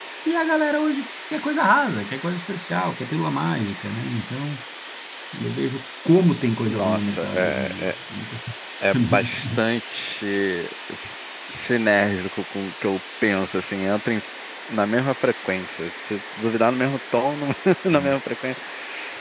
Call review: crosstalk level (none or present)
present